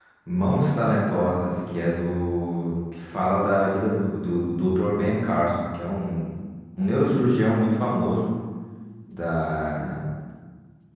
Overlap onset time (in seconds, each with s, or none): none